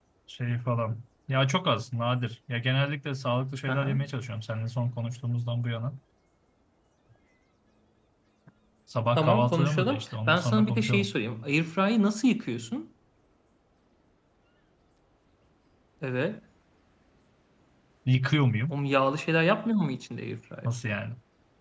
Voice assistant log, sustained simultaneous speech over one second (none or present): present